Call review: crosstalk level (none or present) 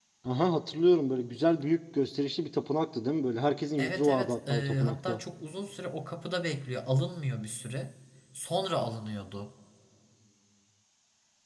present